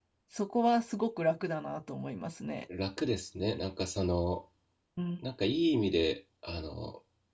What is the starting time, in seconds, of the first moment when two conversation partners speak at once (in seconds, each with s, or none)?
none